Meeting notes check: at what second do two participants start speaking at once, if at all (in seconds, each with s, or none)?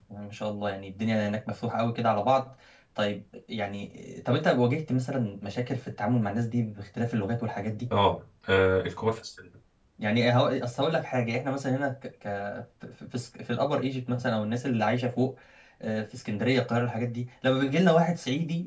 none